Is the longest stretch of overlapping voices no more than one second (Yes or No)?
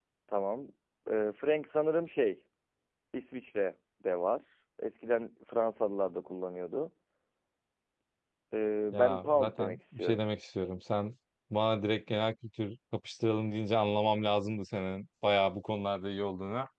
No